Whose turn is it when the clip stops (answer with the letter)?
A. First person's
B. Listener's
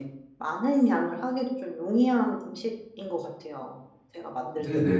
B